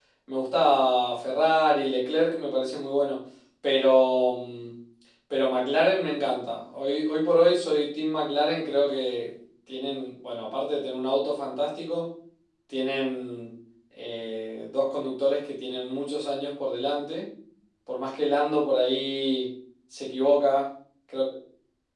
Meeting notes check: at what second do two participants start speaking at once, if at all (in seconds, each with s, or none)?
none